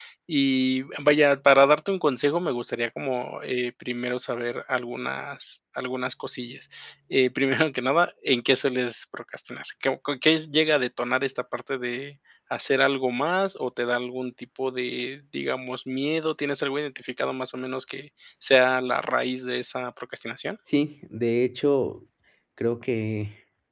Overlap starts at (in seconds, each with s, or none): none